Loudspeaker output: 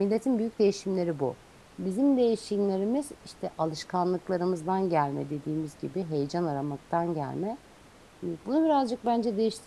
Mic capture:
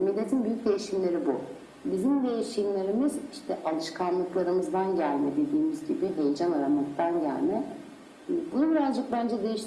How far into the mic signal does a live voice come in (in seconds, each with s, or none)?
none